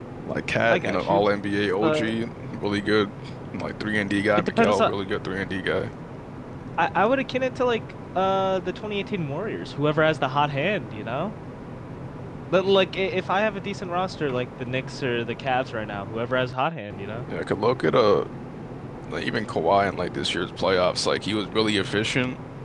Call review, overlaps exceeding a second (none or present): none